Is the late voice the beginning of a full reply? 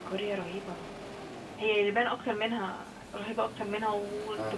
No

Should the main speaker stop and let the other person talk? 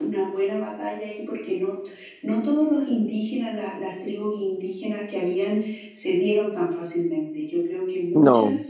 No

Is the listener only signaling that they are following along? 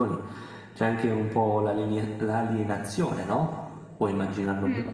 No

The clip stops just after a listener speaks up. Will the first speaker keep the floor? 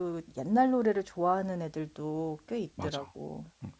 No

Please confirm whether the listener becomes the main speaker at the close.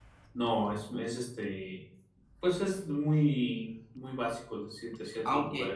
Yes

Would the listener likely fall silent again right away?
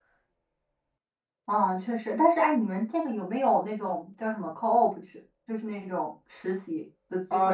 No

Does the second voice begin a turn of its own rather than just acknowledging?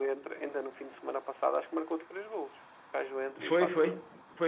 Yes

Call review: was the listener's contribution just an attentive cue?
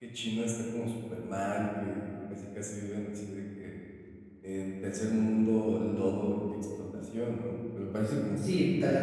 No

